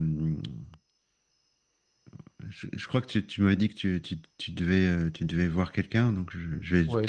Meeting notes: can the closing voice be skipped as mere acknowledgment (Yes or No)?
No